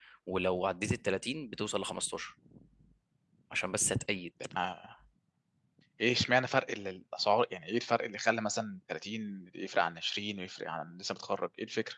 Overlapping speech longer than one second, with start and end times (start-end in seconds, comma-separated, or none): none